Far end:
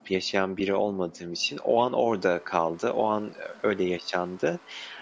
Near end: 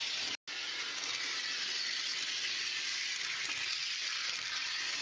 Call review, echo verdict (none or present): none